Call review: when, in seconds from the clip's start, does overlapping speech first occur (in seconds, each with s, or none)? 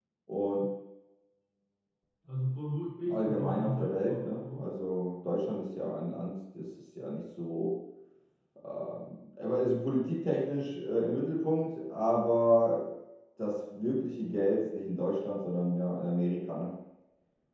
3.1 s